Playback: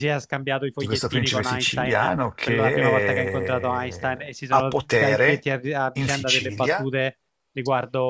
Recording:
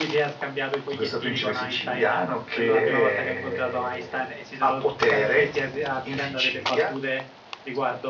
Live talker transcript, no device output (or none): none